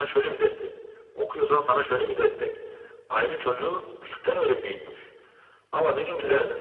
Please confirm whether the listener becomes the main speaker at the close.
No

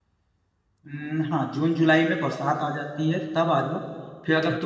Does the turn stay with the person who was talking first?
Yes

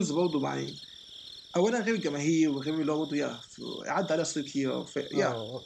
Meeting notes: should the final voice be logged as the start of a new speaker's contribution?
Yes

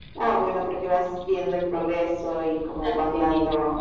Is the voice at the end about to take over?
No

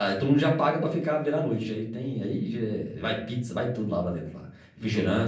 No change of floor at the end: Yes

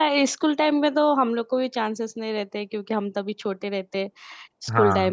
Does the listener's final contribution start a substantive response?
No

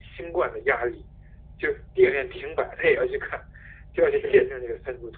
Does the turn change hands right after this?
No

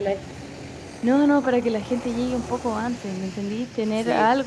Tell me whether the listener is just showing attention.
Yes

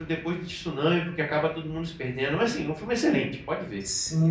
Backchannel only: No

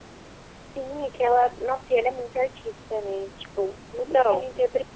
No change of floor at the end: Yes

